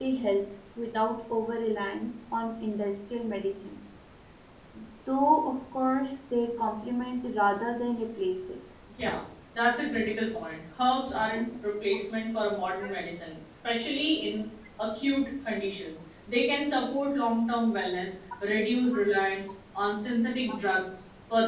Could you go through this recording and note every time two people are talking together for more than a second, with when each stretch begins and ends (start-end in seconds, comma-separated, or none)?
none